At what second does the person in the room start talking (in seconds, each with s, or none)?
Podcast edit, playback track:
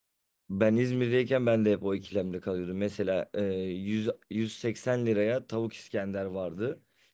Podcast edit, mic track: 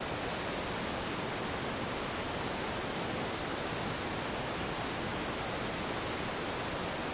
none